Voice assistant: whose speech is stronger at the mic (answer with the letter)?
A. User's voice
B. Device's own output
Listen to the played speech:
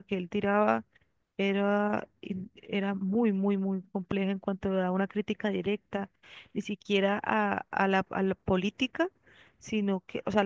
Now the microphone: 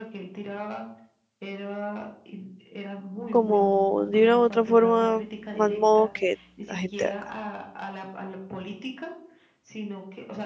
A